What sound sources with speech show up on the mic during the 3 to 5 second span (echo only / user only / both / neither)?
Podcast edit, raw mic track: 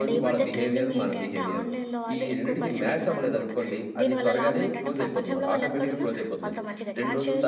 both